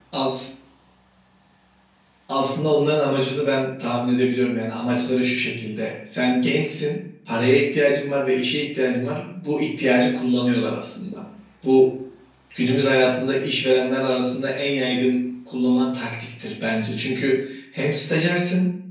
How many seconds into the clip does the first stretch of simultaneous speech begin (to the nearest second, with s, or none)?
none